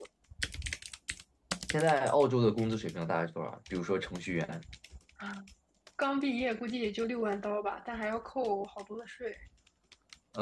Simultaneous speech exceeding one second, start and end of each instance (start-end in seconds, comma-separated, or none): none